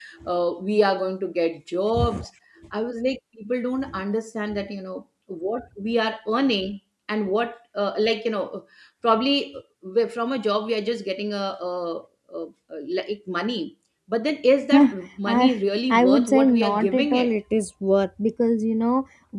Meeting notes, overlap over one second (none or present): present